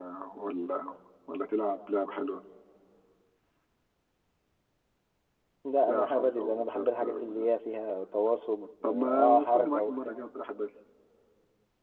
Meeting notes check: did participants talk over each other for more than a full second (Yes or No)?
Yes